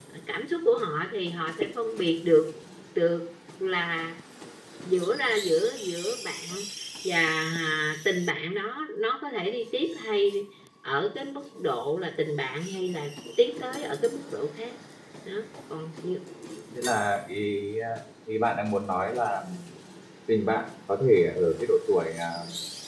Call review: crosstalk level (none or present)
none